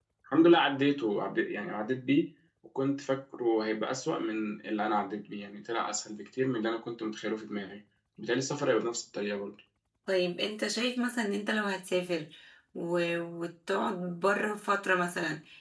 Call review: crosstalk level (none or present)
none